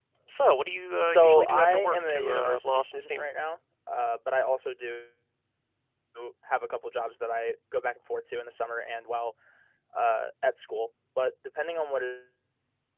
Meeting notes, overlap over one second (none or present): present